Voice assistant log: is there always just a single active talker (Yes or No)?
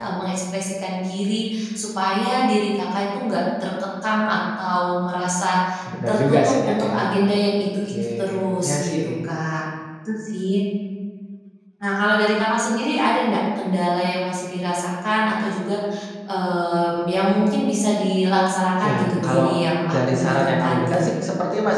No